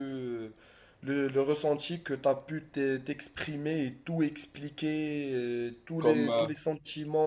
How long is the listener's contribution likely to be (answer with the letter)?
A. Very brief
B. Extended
A